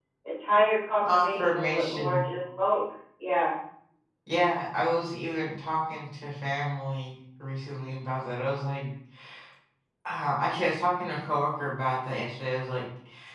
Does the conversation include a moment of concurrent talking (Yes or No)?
Yes